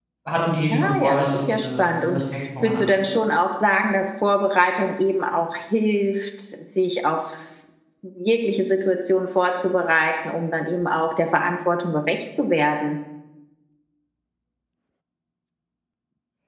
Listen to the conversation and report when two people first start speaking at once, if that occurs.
0.7 s

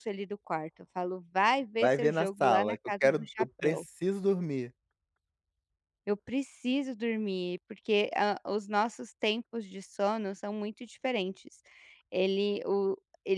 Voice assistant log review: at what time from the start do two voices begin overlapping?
1.8 s

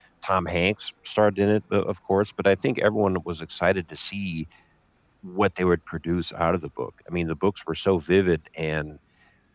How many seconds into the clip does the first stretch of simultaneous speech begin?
none

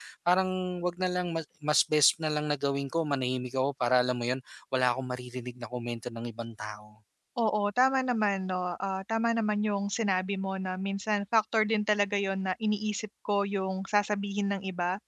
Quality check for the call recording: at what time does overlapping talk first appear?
none

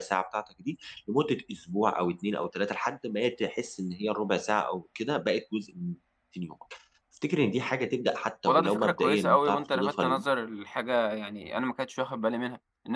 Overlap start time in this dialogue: 8.4 s

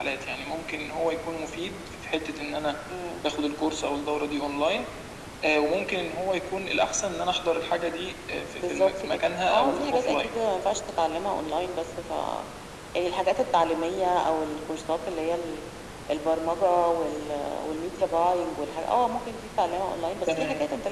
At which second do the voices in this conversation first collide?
8.6 s

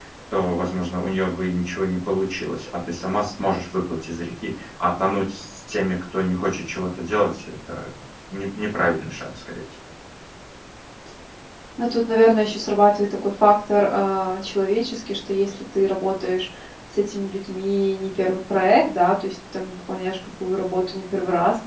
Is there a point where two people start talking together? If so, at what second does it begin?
none

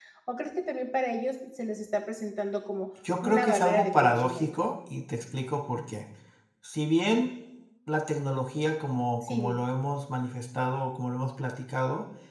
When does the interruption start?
3.2 s

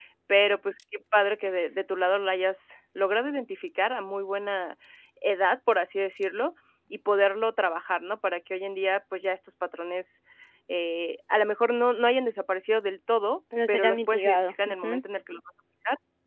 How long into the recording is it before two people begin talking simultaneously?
13.5 s

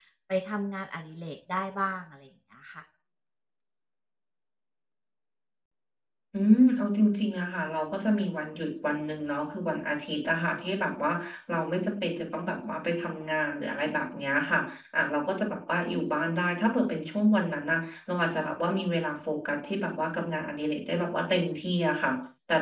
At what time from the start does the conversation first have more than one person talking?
none

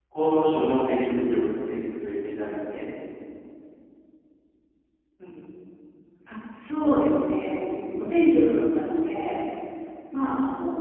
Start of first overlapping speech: none

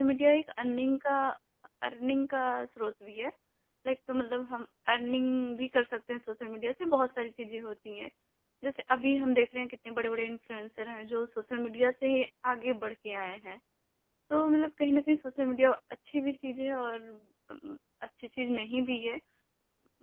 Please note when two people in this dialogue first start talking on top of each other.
none

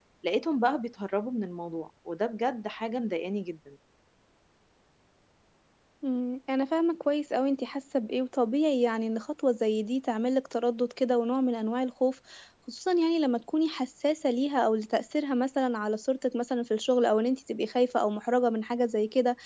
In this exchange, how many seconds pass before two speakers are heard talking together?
none

